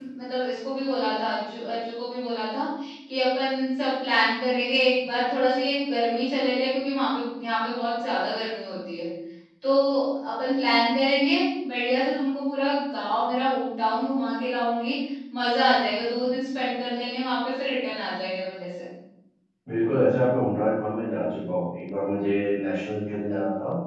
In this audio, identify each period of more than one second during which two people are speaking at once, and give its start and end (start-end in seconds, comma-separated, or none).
none